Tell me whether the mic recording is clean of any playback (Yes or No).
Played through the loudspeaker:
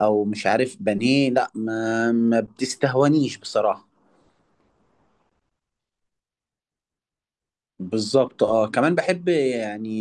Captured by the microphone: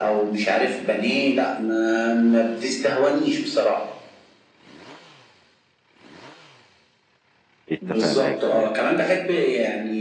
No